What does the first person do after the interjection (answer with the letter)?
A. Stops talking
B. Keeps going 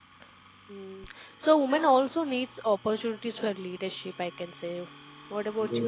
A